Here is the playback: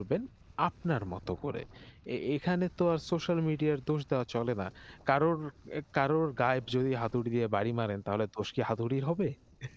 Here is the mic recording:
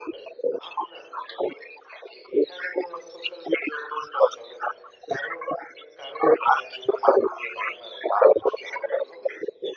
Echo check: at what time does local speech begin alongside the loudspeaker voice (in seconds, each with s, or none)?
none